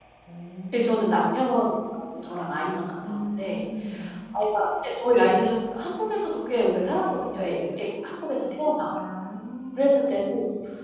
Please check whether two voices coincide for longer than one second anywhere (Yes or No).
No